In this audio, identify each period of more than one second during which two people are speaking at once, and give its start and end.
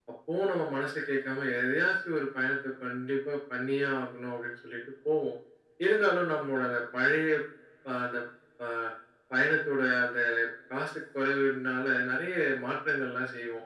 none

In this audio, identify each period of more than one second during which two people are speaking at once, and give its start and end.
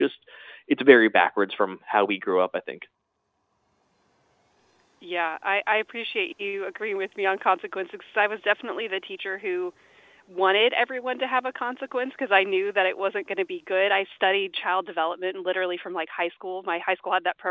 none

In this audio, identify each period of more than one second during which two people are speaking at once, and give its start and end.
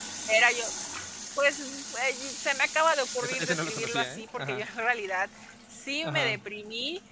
3.2-4.6

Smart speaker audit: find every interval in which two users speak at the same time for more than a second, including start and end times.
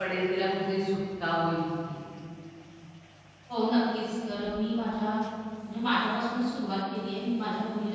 none

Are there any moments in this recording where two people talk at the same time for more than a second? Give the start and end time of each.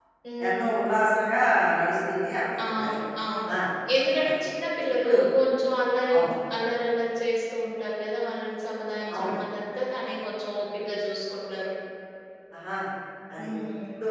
none

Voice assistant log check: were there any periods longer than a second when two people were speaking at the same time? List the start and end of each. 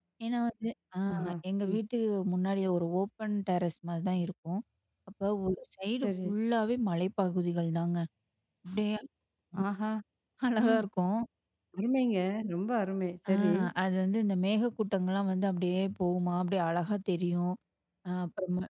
none

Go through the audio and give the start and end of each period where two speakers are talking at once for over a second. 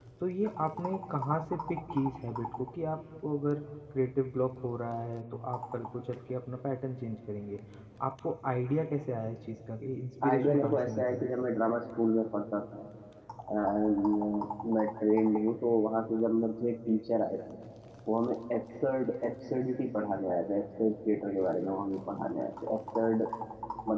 10.2-11.5

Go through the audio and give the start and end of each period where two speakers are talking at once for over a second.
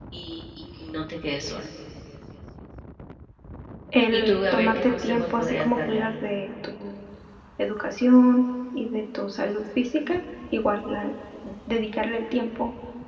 4.1-6.3

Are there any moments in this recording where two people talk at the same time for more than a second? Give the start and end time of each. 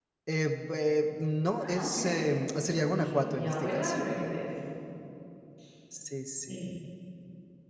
1.6-4.0

